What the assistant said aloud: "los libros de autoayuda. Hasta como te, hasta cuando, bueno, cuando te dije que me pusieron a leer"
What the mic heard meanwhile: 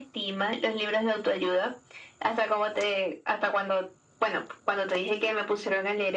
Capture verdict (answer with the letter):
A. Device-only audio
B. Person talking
A